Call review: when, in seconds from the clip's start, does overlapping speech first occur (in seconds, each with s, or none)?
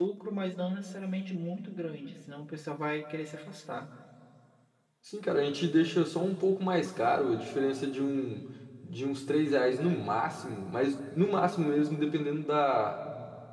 none